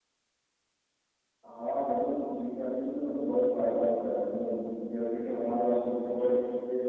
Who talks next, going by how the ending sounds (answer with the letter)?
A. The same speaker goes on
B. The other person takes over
A